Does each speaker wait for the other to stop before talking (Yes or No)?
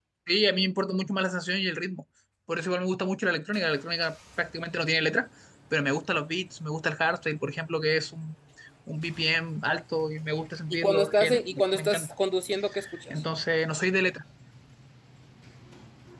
No